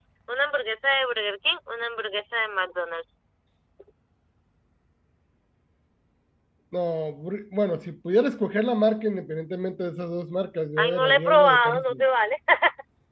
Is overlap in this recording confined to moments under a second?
No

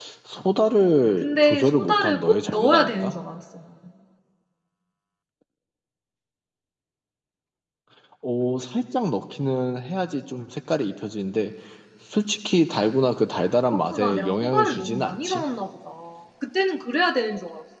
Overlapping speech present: Yes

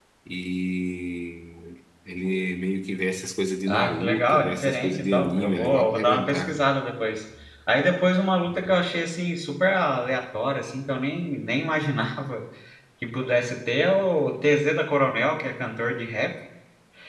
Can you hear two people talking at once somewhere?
Yes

